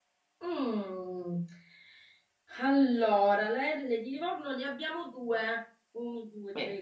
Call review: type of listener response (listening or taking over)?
listening